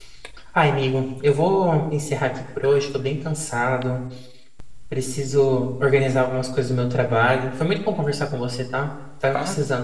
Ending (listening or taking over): listening